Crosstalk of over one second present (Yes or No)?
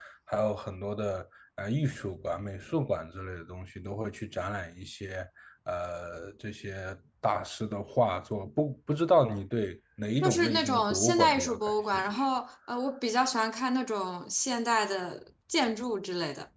Yes